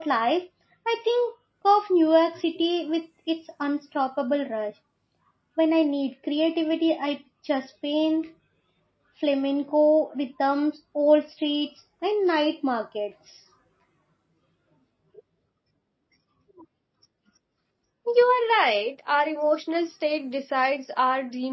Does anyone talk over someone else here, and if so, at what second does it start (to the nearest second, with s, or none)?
none